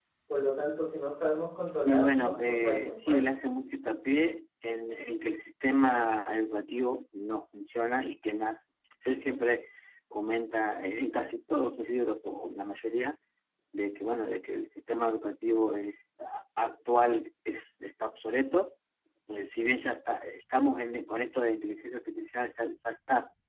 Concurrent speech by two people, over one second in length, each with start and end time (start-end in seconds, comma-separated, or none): 1.8-3.2